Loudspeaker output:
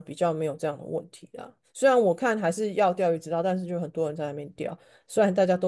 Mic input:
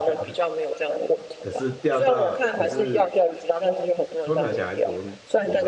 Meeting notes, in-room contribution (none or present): present